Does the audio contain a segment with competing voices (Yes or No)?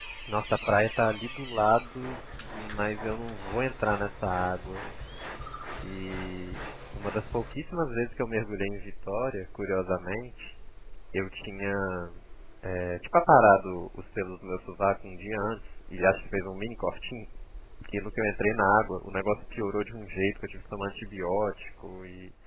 No